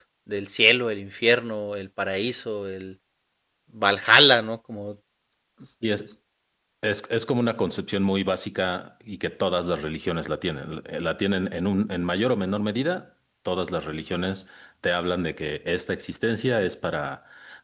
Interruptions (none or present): none